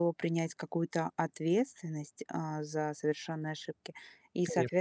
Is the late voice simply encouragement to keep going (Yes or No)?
Yes